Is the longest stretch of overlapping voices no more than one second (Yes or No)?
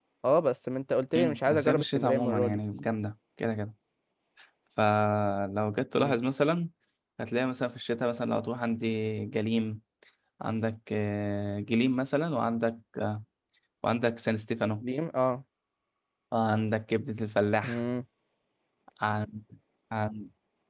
No